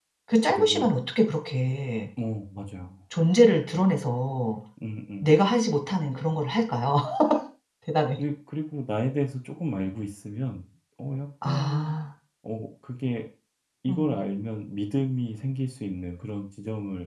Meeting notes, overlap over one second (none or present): none